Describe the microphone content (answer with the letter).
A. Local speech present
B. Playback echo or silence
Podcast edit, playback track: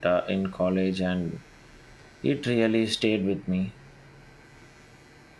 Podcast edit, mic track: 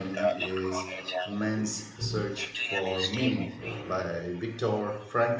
A